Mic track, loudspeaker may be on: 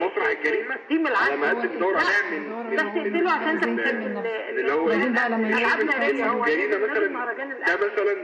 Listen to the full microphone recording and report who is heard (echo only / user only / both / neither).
both